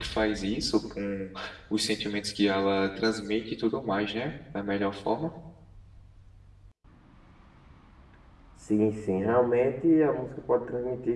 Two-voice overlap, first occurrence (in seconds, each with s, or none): none